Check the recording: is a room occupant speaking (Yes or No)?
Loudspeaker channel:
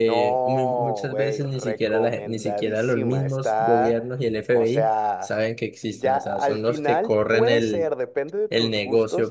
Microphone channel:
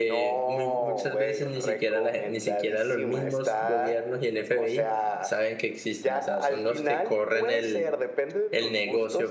No